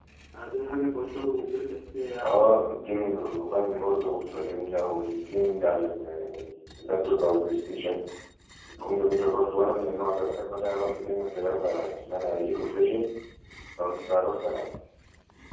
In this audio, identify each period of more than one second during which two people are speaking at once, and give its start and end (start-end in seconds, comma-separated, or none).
none